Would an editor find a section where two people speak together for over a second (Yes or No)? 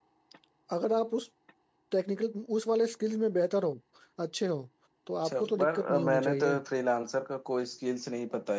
Yes